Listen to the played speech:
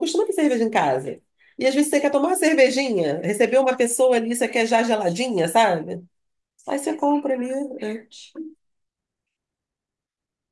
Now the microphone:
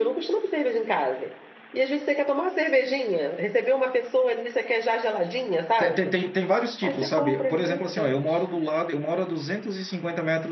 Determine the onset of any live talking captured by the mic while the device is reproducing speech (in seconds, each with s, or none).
5.7 s